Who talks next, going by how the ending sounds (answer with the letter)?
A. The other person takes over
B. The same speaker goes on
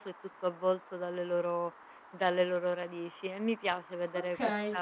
B